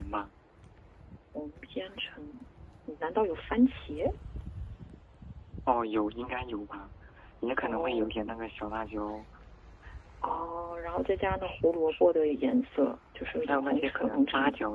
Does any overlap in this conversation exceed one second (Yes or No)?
Yes